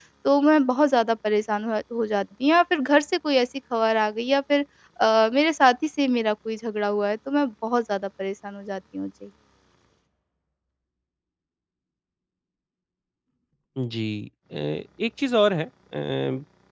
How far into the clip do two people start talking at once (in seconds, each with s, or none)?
none